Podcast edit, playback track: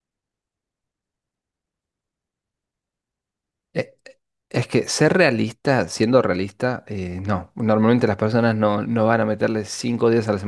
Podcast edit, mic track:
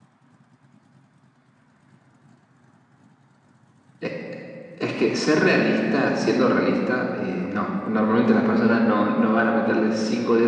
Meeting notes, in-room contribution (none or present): none